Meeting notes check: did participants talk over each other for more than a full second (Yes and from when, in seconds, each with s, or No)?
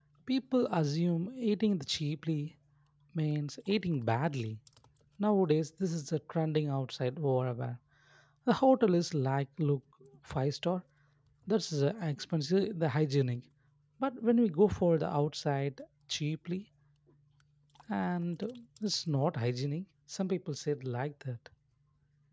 No